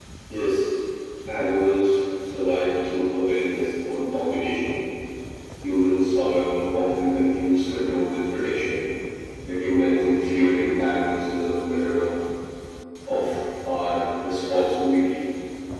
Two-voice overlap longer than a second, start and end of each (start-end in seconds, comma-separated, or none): none